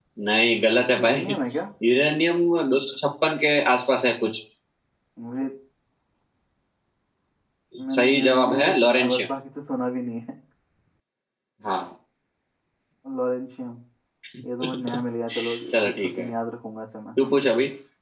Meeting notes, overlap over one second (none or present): present